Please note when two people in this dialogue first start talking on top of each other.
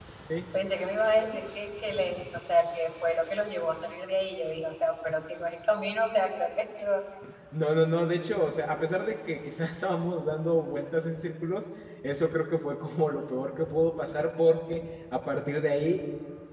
none

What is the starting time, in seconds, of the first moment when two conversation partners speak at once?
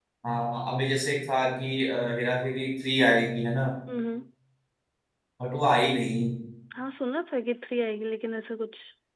none

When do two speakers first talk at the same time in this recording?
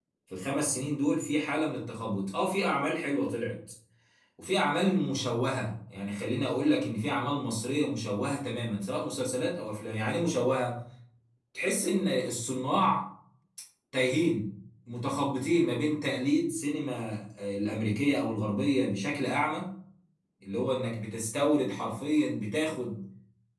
none

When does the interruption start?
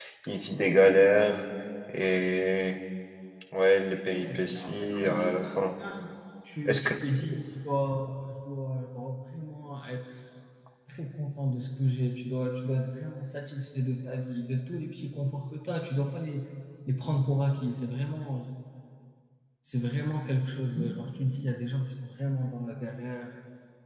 4 s

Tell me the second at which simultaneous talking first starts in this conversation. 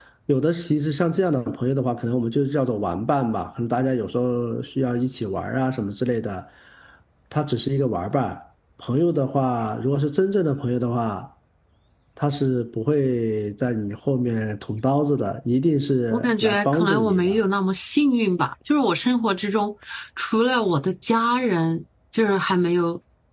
16 s

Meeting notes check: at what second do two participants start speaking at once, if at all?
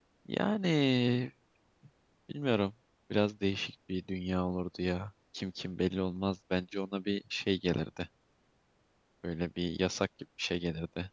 none

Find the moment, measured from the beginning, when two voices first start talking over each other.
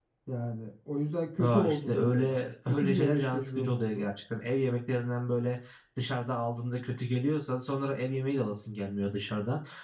1 s

